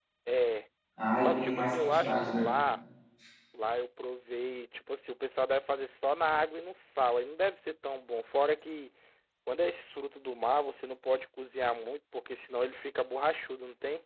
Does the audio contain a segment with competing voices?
Yes, from 1.2 s

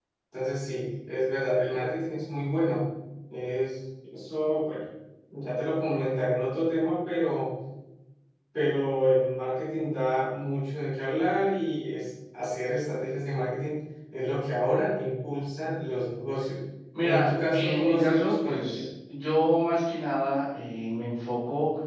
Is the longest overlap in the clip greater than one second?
Yes, from 16.9 s

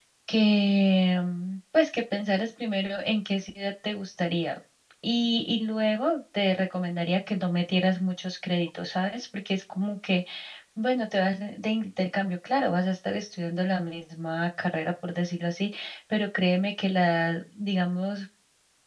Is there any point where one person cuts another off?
No

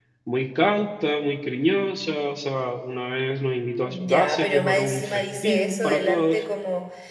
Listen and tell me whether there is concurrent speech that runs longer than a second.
Yes, from 3.8 s

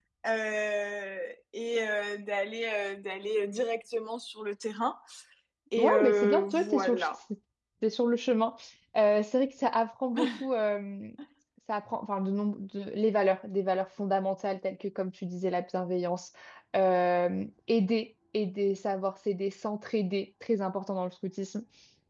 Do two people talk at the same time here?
Yes, from 5.8 s

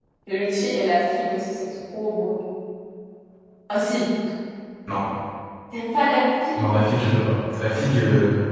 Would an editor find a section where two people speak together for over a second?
No

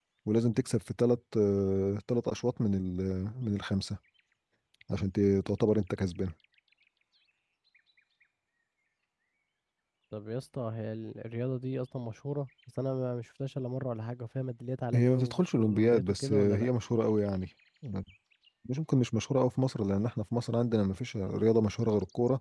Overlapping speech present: Yes, from 14.9 s

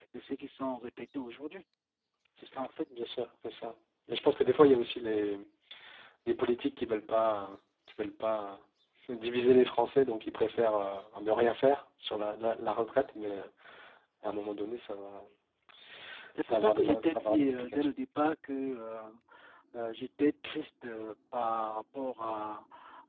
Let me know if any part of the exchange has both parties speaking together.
Yes, from 16.4 s

